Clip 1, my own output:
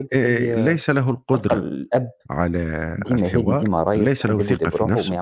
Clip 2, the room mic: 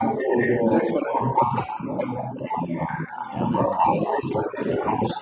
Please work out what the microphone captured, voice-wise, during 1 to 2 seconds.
echo only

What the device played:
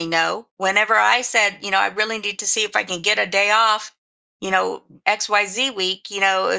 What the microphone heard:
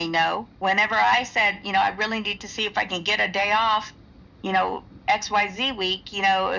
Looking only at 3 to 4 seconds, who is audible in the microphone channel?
echo only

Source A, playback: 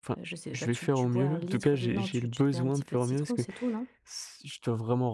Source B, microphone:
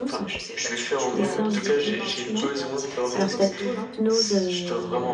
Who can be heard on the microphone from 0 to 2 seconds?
both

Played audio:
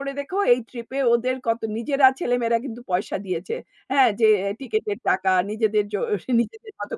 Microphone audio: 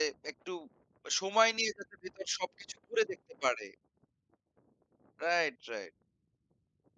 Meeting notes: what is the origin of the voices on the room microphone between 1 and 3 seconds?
user only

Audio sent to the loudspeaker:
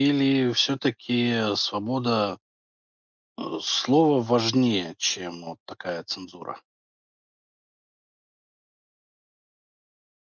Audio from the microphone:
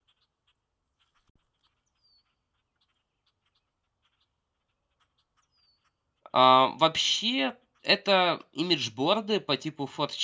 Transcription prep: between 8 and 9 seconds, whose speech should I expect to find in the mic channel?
user only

